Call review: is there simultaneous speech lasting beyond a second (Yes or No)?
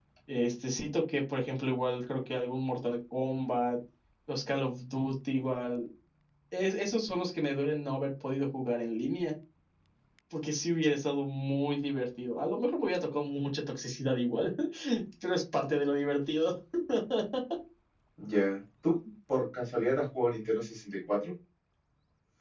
No